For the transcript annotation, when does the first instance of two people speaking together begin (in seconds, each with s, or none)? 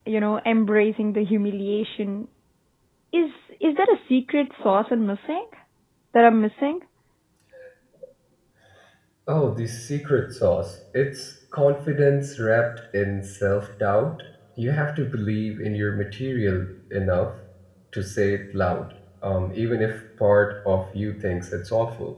none